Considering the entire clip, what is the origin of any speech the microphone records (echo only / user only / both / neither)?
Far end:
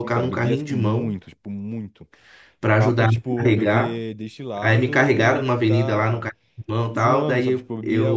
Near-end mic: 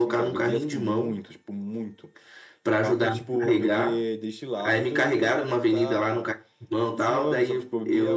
echo only